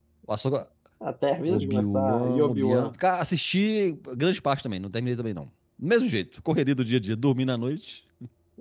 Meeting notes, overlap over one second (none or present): present